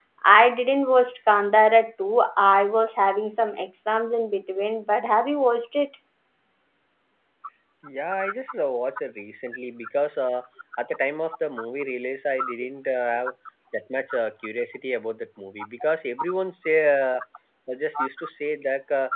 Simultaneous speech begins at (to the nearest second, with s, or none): none